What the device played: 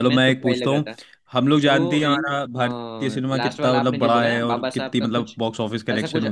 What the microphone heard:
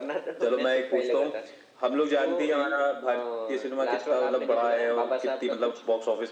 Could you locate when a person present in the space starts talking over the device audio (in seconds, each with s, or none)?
none